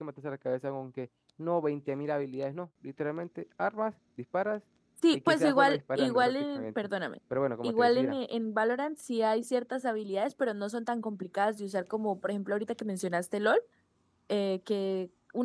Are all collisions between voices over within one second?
No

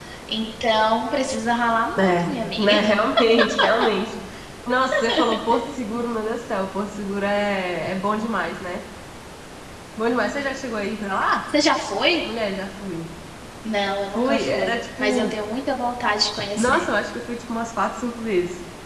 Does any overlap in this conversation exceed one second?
Yes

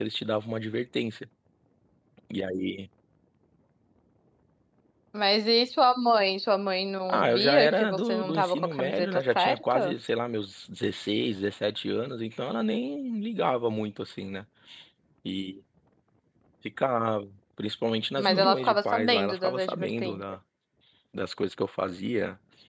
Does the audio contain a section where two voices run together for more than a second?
Yes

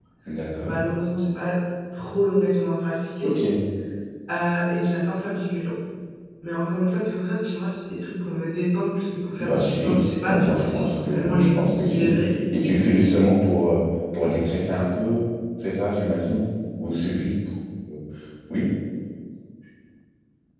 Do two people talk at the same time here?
Yes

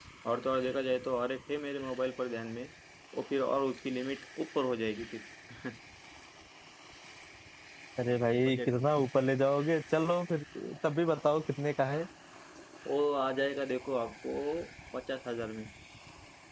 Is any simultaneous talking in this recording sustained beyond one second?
No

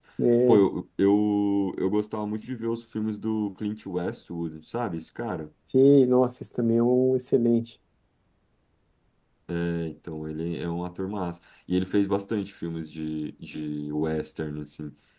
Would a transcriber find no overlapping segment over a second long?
Yes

